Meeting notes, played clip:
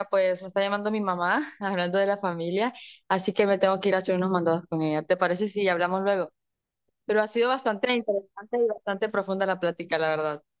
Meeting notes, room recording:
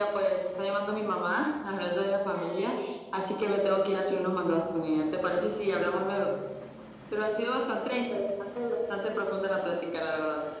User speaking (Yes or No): No